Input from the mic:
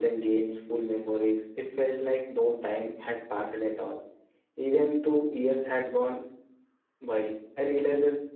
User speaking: Yes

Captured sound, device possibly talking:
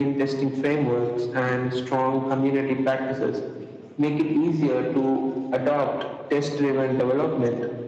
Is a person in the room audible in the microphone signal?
No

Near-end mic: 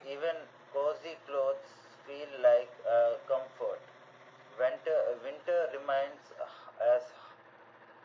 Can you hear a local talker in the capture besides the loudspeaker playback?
No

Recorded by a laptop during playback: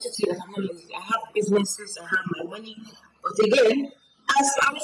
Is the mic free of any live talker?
Yes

